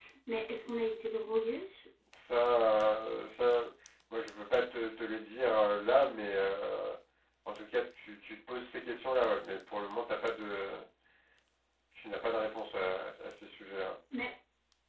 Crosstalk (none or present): none